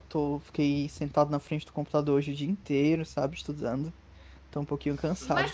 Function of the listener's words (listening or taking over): taking over